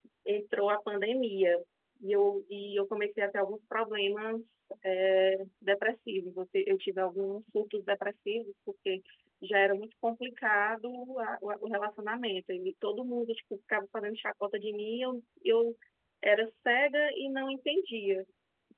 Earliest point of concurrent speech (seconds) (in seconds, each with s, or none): none